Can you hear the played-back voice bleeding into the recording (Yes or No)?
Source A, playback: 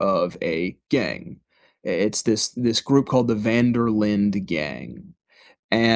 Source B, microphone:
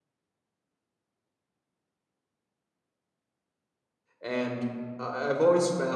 No